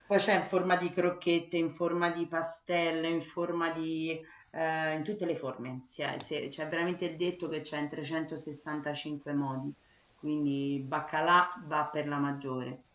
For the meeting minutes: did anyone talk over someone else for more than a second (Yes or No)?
No